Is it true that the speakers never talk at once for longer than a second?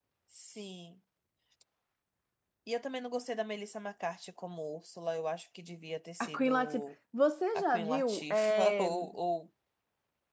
No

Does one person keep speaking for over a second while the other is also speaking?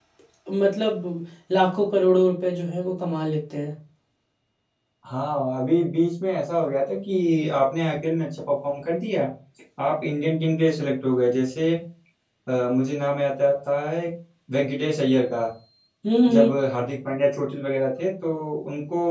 No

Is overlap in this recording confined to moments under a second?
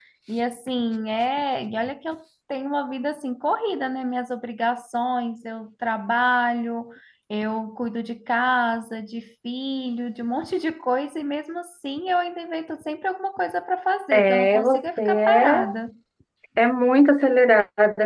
No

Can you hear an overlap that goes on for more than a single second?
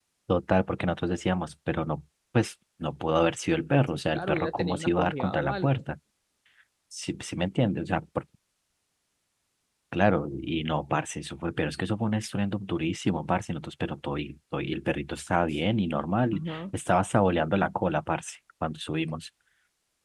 Yes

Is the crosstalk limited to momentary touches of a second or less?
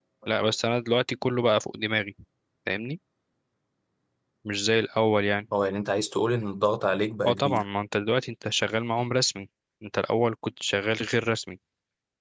Yes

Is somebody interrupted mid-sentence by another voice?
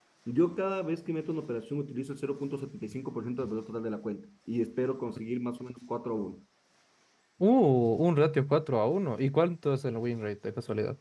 No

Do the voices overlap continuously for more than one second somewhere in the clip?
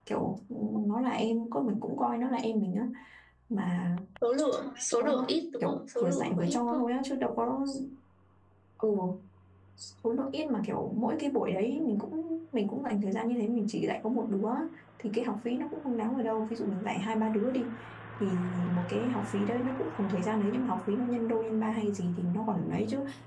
Yes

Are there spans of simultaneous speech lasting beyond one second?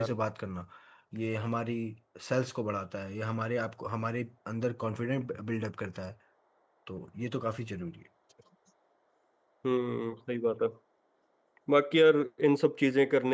No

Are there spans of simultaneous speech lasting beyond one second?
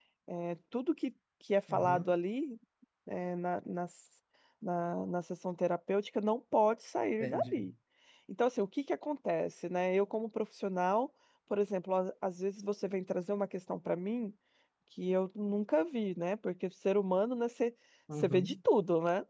No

